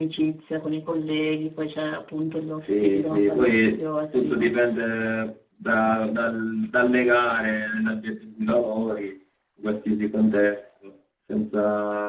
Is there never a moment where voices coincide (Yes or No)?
No